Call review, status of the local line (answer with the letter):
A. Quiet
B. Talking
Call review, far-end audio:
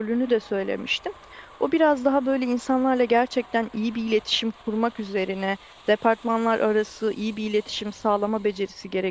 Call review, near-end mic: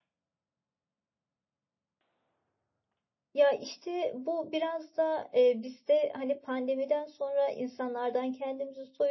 B